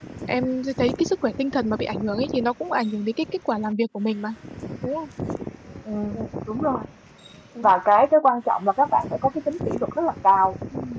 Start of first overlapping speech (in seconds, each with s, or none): none